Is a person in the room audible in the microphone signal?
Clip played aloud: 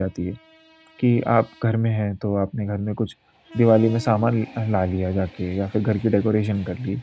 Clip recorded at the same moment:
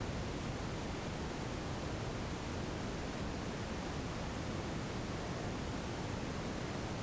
No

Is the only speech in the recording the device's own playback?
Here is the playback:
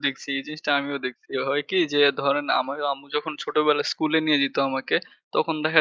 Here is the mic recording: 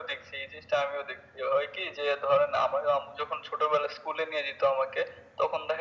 Yes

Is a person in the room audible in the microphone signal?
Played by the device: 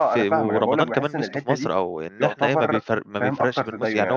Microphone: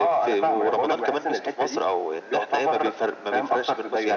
No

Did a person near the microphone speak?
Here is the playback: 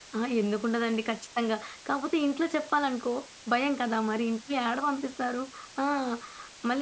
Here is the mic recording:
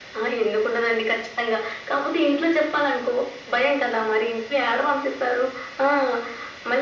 No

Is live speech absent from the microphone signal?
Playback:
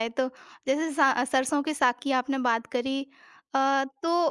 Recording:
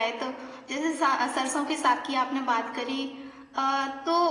Yes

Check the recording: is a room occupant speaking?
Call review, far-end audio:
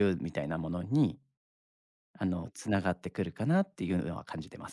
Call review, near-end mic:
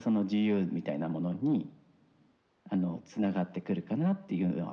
No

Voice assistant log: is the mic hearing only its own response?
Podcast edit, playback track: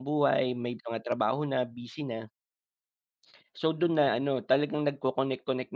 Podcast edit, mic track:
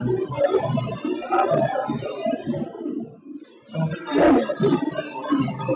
No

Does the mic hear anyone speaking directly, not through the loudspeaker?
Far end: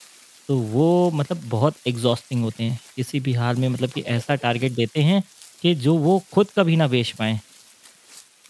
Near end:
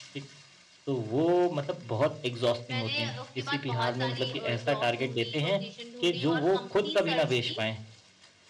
Yes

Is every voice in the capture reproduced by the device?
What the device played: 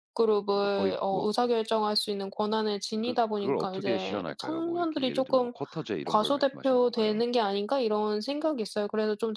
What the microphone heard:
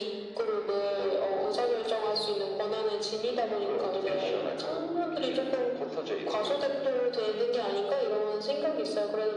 Yes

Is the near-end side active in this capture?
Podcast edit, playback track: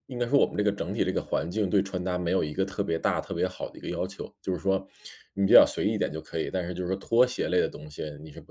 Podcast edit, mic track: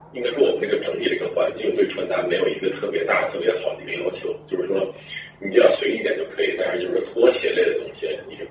Yes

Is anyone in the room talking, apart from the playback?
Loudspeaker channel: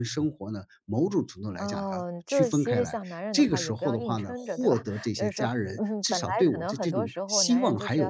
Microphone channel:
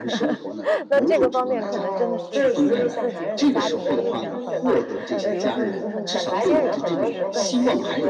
Yes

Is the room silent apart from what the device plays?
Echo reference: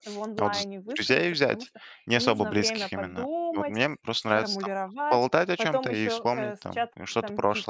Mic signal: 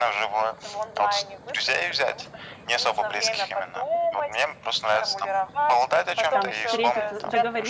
No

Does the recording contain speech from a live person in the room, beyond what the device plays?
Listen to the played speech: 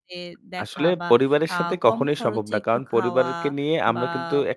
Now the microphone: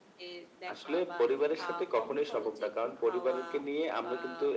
No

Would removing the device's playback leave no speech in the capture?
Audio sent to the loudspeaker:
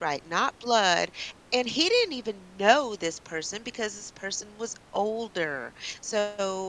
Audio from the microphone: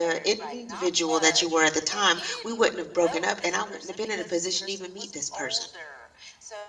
No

